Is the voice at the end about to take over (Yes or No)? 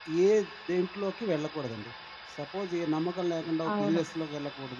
No